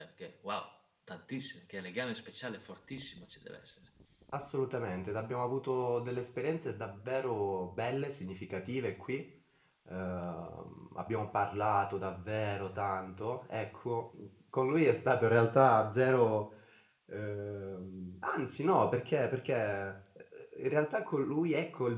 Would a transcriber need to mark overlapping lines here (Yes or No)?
No